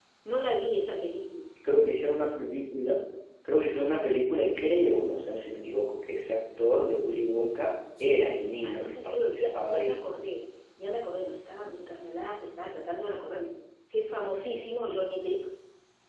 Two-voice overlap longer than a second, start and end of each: 8.6-10.0

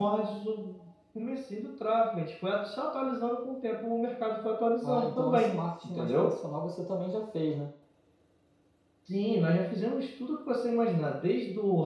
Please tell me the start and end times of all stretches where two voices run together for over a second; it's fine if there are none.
4.8-6.3

